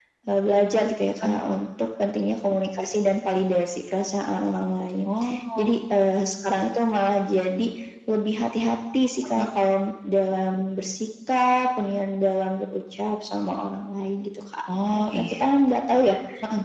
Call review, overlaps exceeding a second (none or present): none